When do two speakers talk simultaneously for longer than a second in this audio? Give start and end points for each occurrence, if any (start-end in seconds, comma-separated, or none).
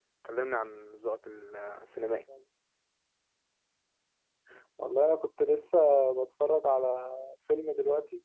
none